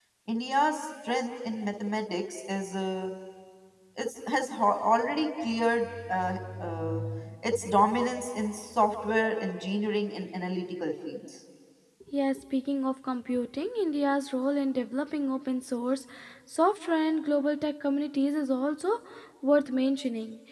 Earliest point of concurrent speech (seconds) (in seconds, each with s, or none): none